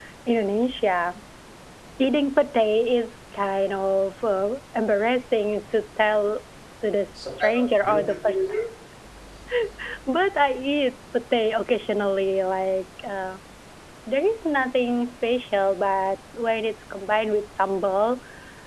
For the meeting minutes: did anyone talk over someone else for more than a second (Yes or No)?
Yes